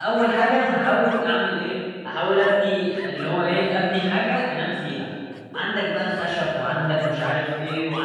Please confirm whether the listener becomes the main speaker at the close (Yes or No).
No